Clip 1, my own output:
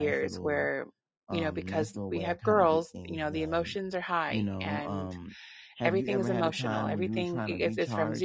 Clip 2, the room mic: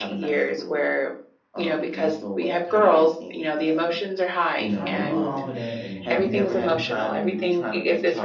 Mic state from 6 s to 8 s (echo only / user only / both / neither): both